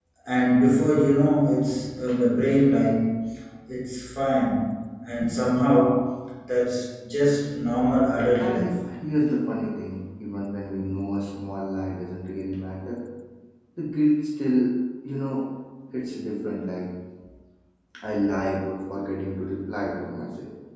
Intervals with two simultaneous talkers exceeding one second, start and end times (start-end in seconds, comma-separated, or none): none